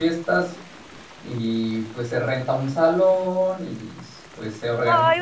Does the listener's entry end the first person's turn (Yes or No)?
Yes